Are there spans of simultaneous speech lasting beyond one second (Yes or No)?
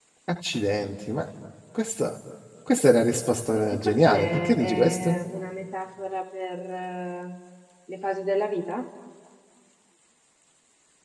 Yes